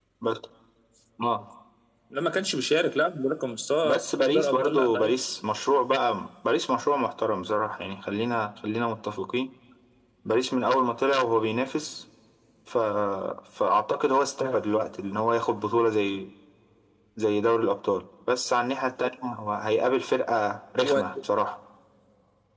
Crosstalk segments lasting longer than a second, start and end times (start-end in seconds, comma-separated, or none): 3.8-5.2